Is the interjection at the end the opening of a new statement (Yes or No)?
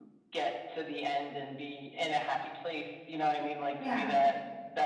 No